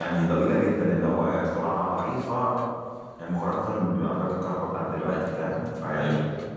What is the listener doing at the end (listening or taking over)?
listening